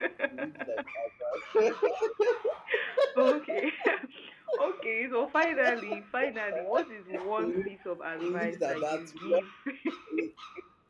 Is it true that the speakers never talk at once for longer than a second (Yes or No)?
No